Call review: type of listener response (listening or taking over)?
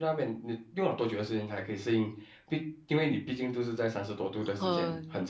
taking over